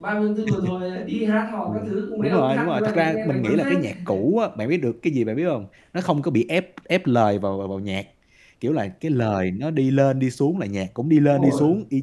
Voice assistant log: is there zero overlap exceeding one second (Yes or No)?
No